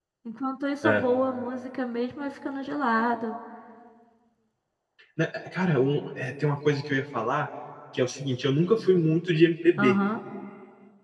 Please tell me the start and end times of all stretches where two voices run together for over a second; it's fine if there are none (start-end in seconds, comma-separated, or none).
none